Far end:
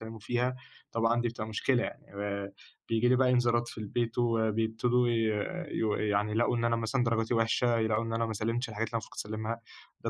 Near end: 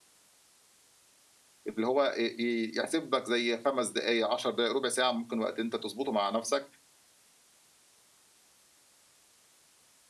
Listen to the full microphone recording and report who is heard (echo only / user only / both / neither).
user only